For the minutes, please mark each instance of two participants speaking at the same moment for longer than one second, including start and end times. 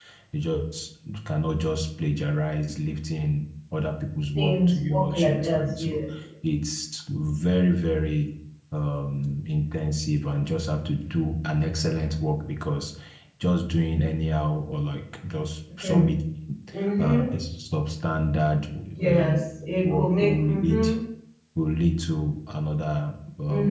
4.3-6.0, 19.0-20.9

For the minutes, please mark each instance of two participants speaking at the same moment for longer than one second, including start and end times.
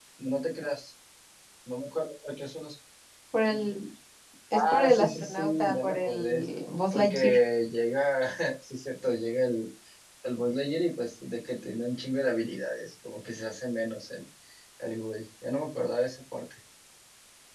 4.5-6.4

